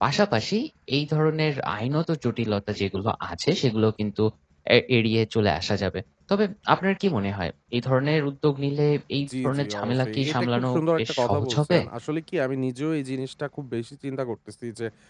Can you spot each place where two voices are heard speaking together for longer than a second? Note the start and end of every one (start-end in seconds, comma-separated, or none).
9.4-11.8